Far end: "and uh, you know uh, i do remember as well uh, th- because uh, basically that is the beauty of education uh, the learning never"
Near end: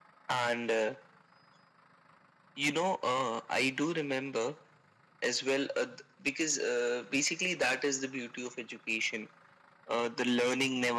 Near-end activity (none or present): none